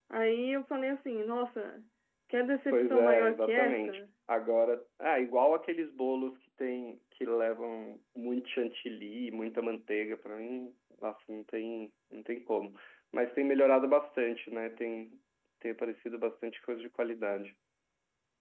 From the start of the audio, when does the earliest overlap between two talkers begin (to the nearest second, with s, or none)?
3 s